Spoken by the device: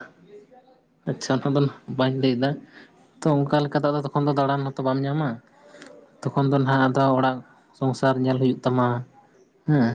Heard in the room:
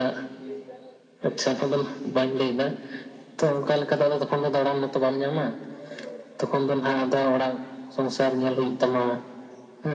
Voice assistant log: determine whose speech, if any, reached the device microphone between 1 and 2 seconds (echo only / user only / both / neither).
echo only